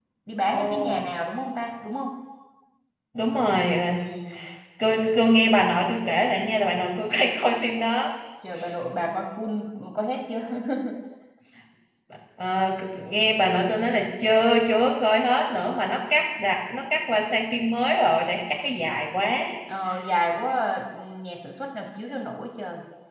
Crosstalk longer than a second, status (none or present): none